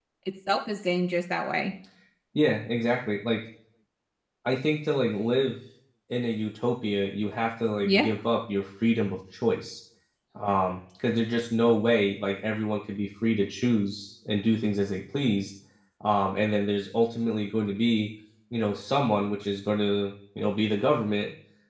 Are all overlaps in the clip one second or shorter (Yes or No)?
Yes